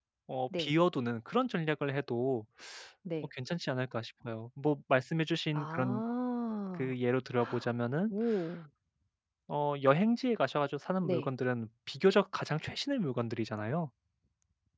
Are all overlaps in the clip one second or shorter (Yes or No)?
Yes